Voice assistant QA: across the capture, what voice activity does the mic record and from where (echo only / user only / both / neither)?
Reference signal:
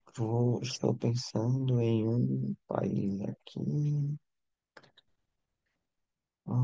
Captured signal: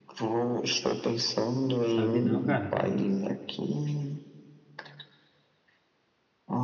both